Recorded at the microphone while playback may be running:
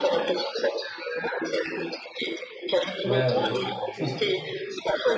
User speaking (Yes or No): Yes